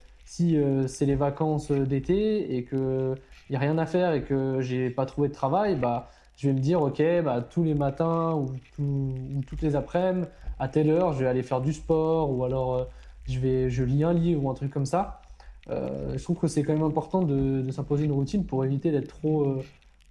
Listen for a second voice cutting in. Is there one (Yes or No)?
No